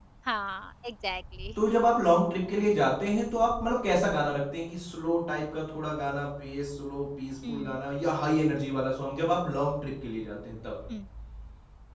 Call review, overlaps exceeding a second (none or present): none